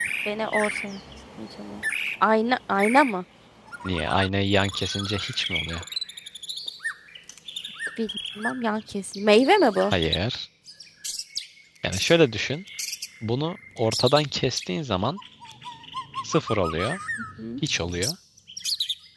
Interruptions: none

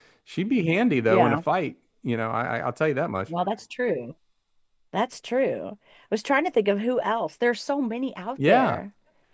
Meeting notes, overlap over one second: none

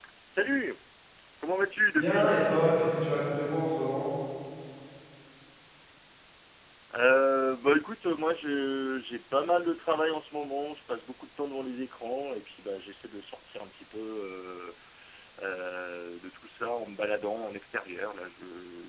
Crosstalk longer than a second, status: none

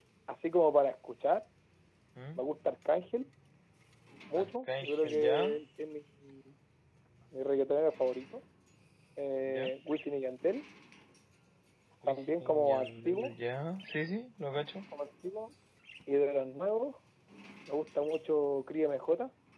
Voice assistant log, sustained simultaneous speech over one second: present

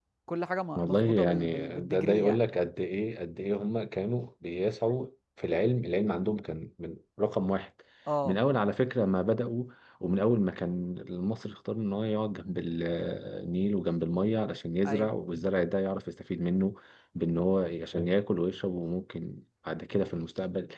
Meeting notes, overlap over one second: present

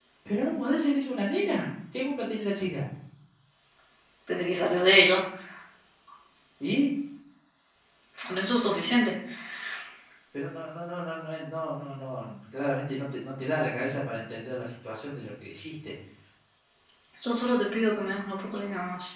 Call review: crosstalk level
none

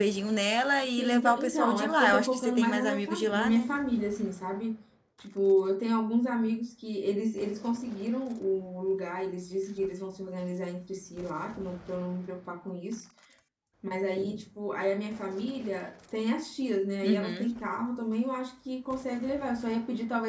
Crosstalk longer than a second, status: present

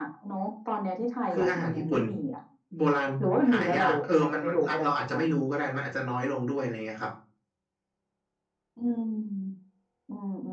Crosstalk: present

